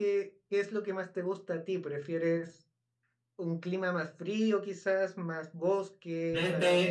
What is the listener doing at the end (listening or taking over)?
taking over